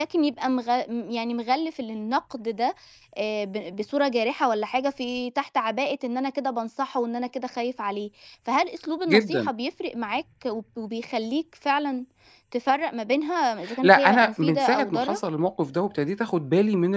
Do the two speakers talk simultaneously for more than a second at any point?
Yes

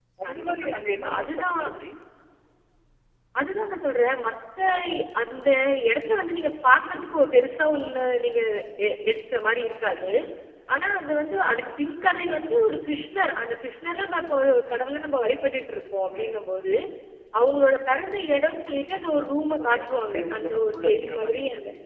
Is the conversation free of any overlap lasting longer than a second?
No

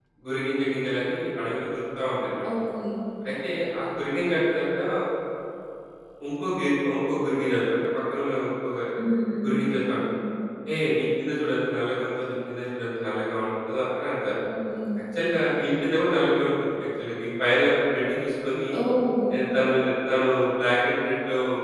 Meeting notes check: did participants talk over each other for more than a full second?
No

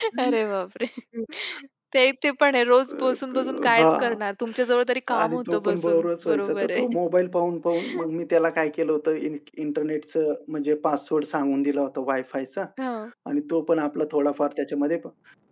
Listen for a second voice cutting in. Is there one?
Yes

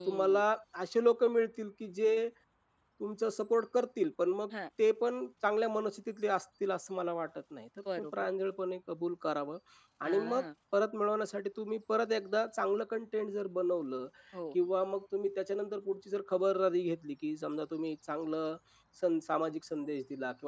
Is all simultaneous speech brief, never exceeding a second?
Yes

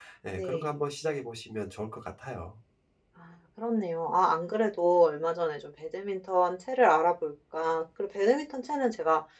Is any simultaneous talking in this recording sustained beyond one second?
No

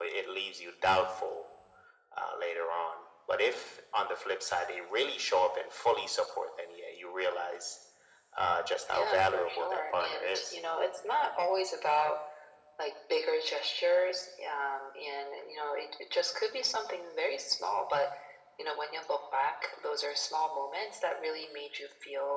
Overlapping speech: Yes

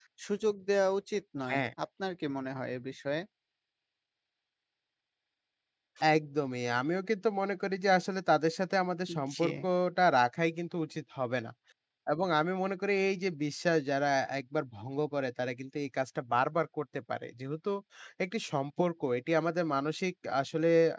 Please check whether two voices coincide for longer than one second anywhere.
No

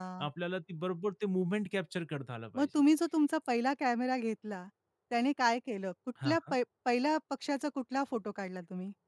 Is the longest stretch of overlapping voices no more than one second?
Yes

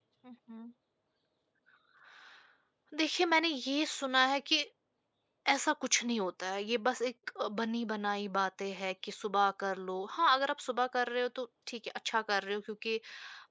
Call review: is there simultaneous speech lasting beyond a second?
No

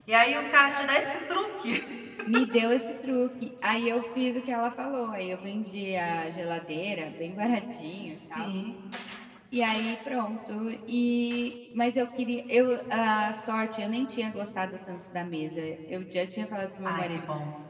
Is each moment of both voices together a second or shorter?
Yes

